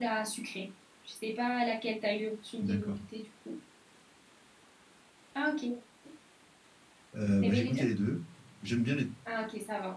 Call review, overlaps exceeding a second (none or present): none